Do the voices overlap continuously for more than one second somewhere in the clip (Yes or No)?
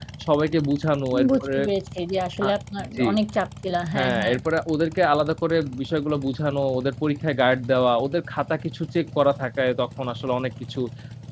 No